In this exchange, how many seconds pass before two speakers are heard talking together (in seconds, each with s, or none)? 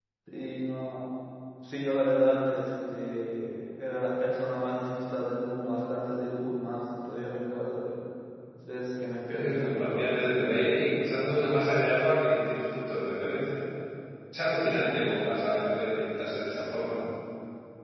9.3 s